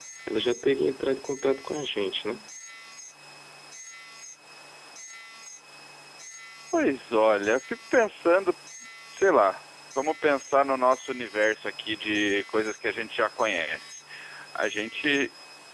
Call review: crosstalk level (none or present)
none